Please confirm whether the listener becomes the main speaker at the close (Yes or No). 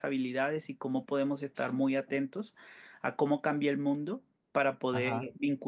No